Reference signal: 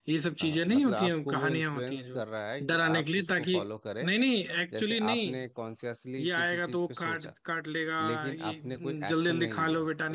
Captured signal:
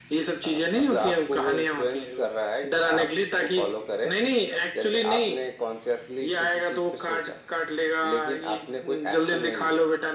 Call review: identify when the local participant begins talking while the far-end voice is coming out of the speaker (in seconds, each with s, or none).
none